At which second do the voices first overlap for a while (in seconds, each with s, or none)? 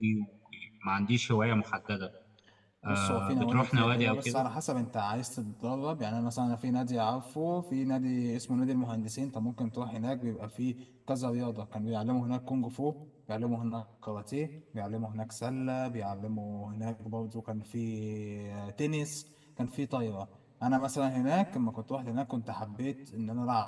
2.9 s